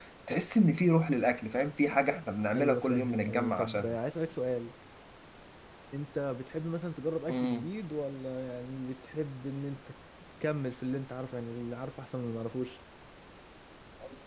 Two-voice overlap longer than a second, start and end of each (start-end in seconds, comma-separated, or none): 2.5-4.0